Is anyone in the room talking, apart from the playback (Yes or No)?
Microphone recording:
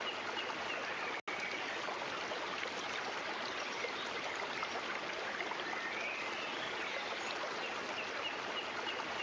No